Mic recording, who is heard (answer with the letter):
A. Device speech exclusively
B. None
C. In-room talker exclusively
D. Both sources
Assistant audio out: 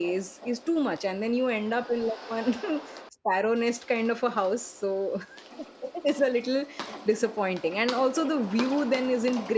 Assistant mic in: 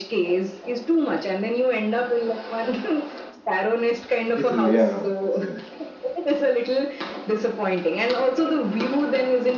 D